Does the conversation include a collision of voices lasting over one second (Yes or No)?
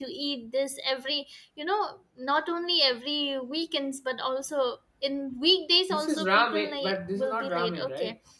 Yes